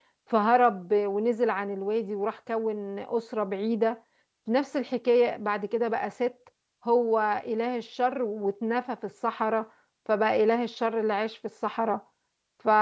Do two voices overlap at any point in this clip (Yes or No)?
No